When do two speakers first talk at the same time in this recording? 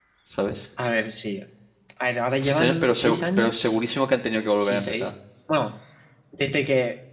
2 s

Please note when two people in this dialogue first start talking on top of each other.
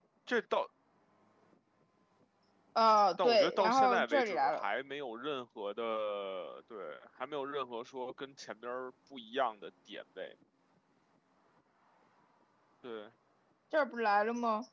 3 s

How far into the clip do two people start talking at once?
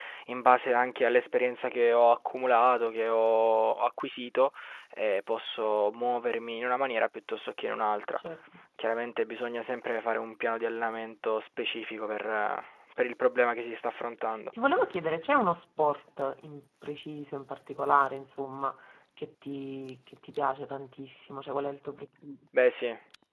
none

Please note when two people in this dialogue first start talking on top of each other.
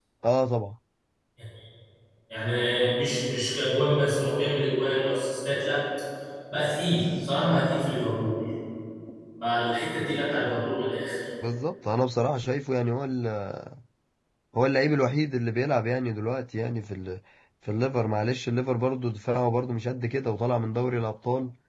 none

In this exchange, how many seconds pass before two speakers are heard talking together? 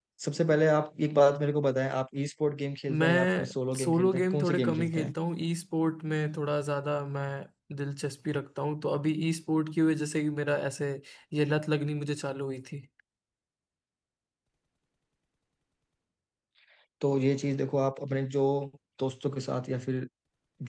3 s

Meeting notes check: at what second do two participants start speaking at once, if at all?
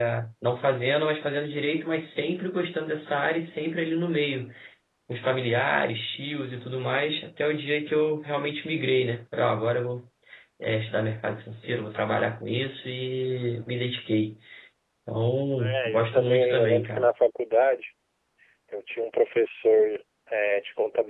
16 s

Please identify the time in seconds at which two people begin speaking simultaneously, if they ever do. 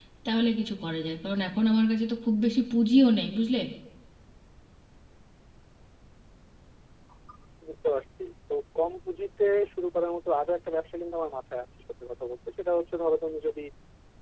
none

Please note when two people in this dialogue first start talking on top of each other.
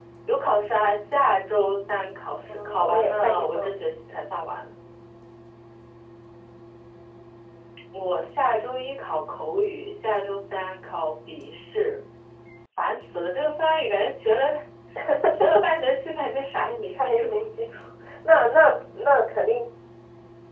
2 s

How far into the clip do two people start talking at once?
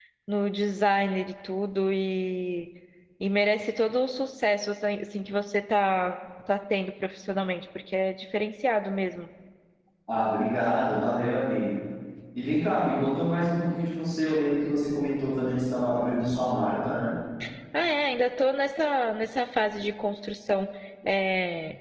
none

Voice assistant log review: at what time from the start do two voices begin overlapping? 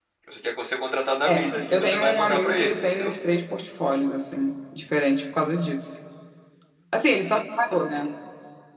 1 s

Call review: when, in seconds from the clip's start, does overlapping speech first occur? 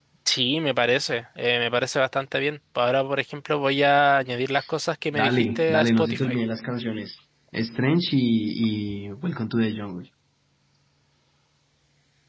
5 s

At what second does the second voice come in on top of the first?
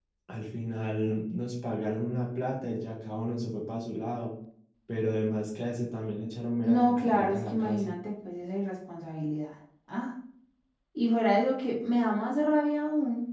7 s

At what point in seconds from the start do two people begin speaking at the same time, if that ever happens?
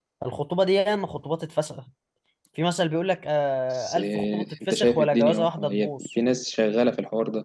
4 s

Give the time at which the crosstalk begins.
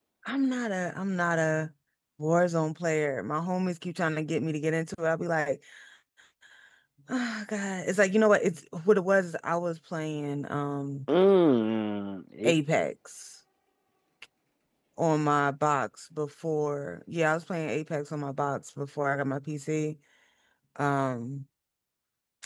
none

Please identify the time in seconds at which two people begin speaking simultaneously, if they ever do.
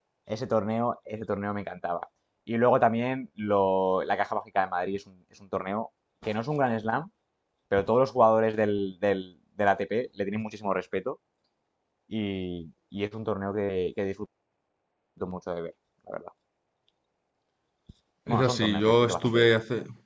18 s

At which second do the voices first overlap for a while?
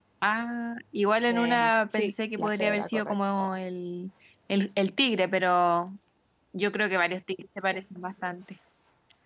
1 s

